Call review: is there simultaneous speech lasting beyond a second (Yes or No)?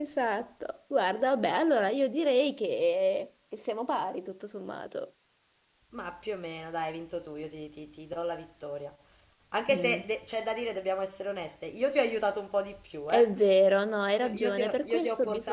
Yes